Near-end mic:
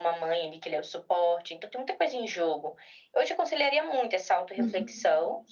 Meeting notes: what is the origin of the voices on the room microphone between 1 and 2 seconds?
echo only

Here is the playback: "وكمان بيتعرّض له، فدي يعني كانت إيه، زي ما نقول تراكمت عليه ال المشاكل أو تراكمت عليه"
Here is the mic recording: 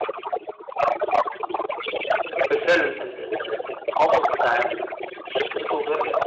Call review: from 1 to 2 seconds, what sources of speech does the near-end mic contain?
echo only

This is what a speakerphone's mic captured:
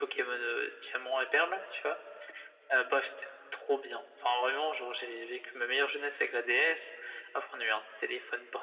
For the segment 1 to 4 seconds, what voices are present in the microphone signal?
echo only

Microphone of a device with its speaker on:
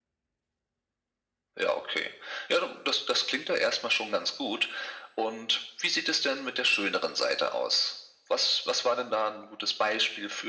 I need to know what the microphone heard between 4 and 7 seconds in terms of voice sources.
echo only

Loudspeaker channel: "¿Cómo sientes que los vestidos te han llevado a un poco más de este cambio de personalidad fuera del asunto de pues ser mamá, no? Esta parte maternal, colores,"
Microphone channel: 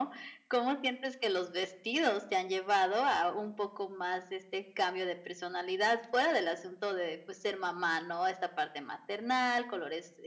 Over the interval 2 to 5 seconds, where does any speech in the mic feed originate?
echo only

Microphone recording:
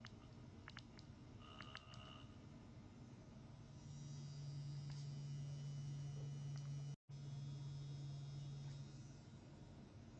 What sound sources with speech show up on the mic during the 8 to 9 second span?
neither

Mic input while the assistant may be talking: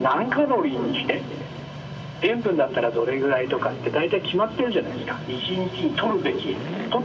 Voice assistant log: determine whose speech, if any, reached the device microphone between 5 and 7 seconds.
echo only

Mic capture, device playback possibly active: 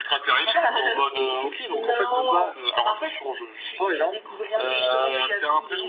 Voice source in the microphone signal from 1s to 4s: echo only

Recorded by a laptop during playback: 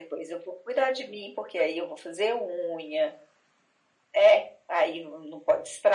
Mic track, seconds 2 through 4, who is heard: echo only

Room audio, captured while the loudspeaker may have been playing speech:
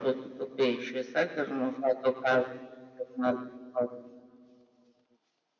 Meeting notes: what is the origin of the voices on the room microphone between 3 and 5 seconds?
echo only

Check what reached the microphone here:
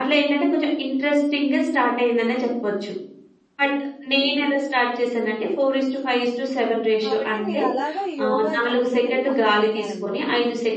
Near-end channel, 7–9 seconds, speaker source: both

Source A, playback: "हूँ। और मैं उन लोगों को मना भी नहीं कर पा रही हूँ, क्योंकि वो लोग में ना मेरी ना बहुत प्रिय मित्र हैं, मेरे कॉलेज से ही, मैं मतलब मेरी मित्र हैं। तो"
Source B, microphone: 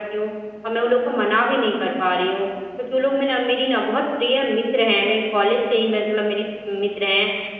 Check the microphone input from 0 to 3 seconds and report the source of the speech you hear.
echo only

